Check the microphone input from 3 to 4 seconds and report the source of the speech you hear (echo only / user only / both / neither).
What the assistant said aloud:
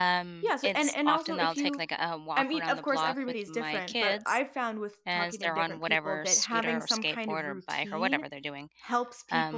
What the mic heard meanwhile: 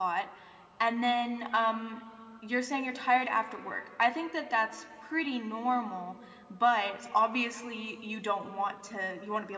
user only